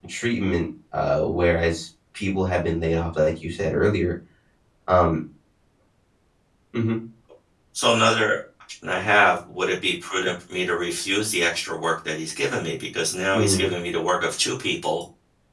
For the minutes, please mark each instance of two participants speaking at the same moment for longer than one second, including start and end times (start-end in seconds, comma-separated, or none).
none